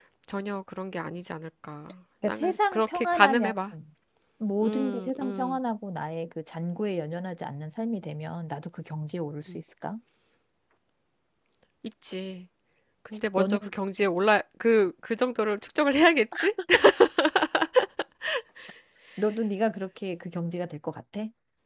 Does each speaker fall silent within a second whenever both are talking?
No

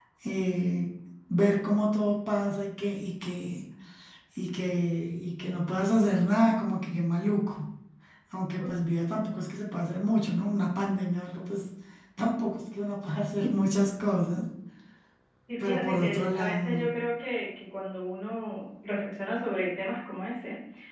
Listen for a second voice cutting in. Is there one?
Yes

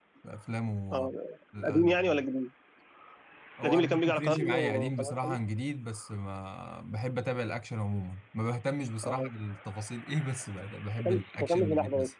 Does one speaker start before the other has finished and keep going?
Yes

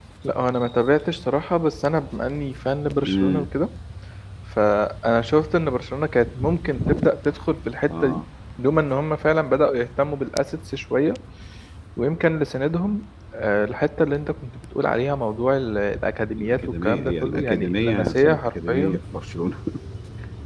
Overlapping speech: Yes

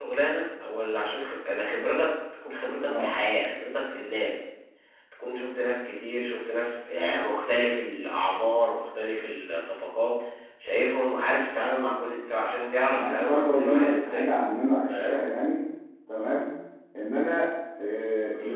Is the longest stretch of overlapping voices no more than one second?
No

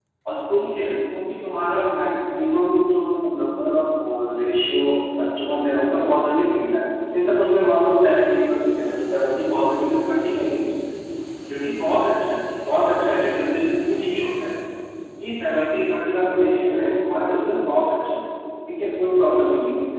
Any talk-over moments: No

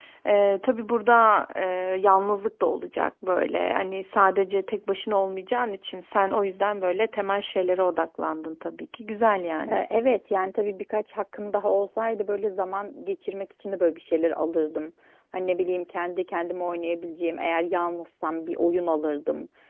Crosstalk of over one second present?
No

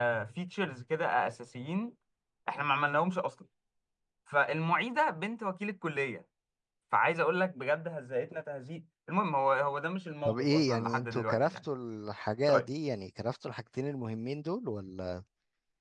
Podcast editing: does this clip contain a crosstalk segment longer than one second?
Yes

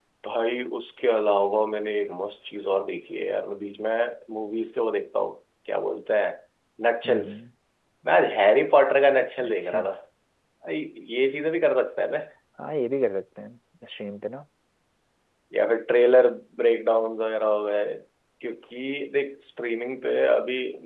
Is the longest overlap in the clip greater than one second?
No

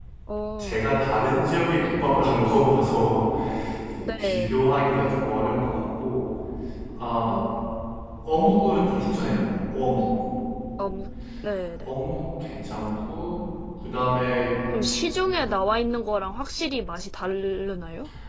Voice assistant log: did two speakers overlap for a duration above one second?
No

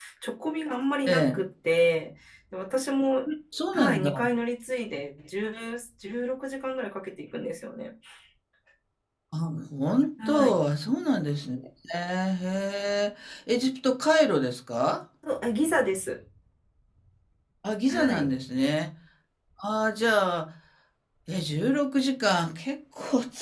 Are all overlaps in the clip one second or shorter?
Yes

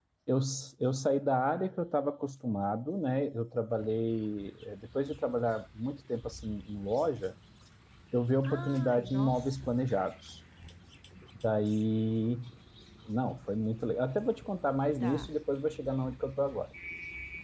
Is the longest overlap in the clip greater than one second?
Yes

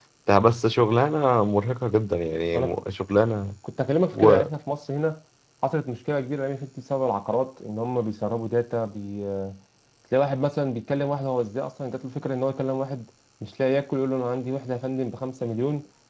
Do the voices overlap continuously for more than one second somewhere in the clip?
No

